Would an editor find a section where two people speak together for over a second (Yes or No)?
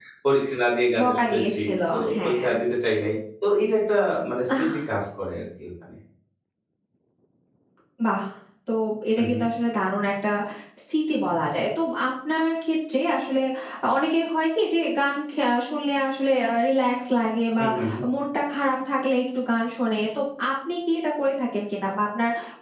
Yes